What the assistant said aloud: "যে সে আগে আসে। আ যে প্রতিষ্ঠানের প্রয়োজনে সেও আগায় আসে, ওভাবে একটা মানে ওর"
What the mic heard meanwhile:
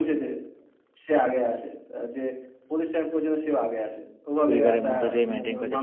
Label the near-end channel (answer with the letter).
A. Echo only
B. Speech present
B